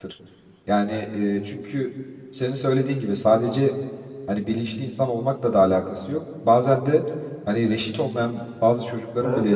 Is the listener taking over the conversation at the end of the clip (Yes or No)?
No